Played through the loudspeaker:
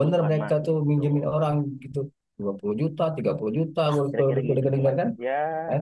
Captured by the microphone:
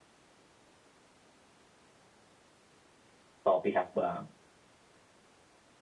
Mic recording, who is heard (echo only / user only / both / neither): user only